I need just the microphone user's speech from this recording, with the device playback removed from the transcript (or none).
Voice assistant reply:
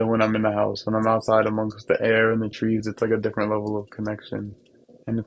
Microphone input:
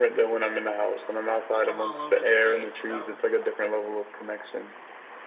from all over the place. So,